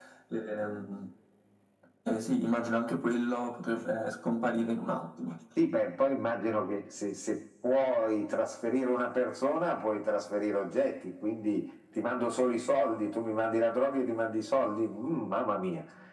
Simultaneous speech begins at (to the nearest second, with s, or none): none